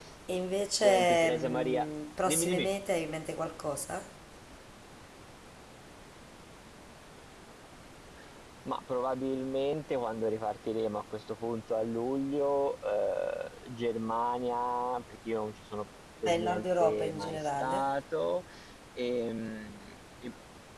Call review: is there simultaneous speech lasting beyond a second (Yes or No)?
Yes